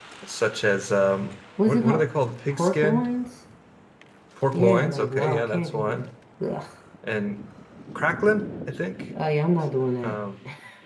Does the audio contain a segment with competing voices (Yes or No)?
Yes